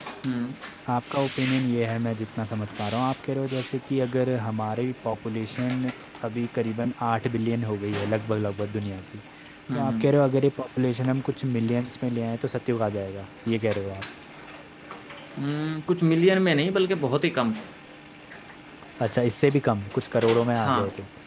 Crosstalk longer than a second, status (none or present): none